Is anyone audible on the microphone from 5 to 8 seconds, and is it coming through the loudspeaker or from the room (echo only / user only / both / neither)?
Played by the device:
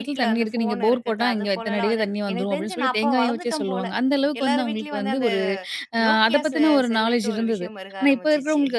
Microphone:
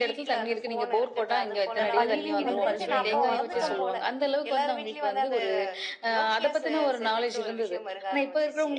echo only